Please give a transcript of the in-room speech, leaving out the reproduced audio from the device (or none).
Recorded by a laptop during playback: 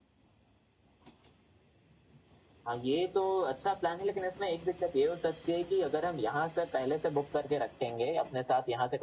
none